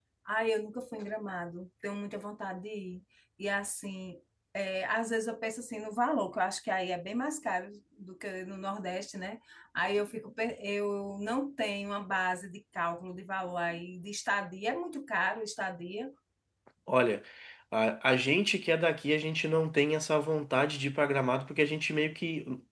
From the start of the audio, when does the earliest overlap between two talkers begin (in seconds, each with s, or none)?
none